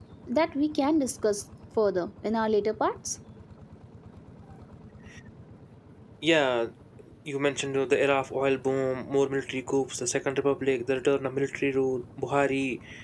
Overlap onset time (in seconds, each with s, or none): none